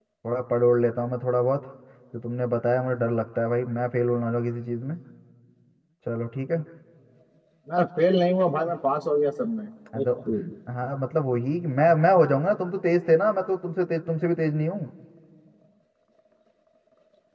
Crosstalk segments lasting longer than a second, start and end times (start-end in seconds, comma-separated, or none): none